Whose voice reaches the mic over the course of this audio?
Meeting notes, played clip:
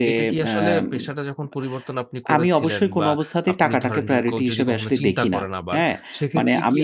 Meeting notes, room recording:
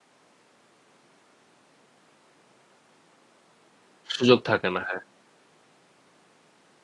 user only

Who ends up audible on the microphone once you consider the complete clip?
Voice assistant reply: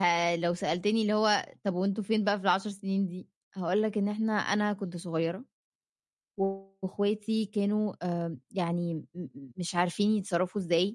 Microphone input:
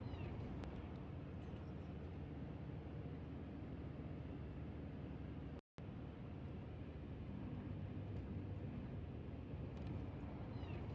neither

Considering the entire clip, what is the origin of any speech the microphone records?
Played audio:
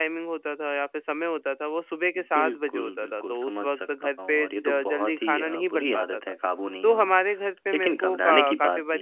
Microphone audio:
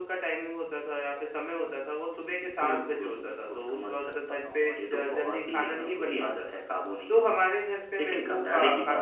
echo only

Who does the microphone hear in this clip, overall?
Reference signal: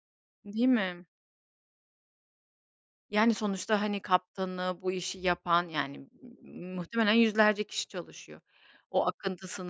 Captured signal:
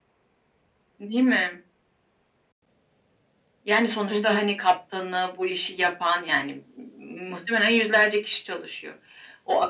both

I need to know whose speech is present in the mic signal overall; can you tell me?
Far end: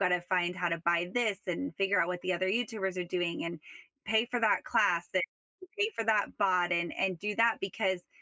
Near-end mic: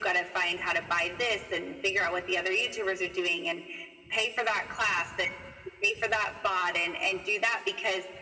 echo only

